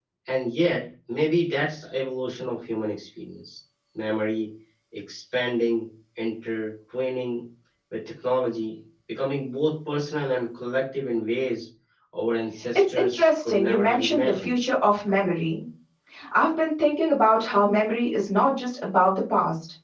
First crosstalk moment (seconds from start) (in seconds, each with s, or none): 12.8 s